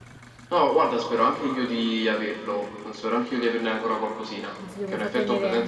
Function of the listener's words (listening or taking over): taking over